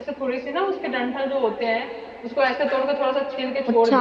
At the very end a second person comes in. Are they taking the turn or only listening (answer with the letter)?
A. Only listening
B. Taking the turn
A